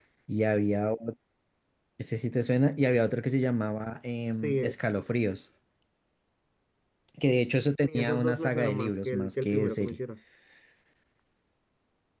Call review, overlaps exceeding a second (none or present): present